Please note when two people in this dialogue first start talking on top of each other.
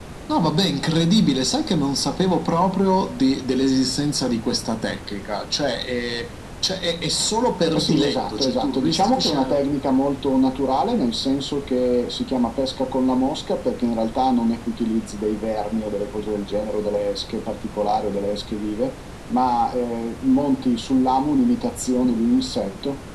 7.8 s

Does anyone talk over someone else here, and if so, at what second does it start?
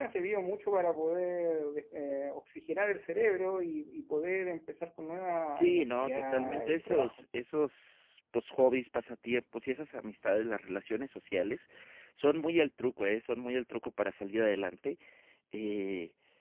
5.5 s

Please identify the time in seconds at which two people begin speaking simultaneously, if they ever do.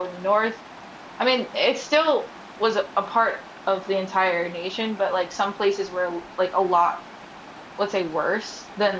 none

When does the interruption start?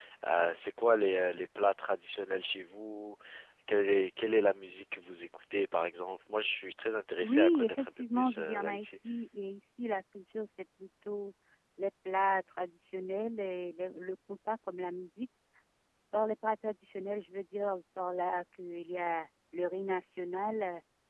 7.2 s

